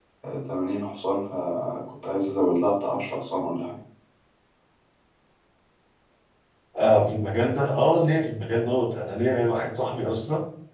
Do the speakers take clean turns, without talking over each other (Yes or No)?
Yes